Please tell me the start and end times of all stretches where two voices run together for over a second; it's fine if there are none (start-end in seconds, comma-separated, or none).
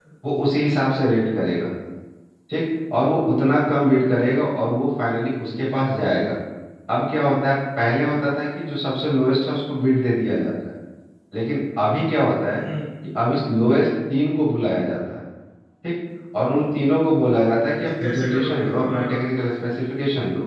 17.8-19.2